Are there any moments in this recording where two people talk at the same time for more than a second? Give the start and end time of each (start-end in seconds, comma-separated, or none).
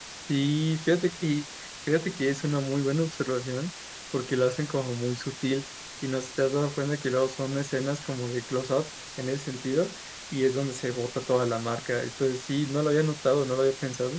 none